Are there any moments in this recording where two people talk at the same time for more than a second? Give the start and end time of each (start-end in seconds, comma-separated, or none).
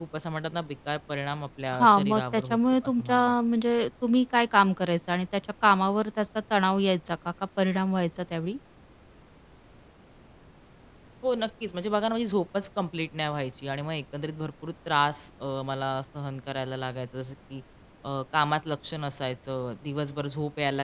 1.7-3.3